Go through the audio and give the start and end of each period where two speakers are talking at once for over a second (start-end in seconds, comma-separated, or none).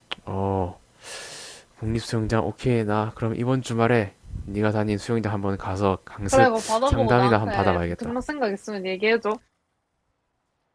6.3-8.1